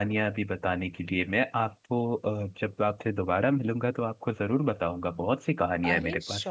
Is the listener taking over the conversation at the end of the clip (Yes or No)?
Yes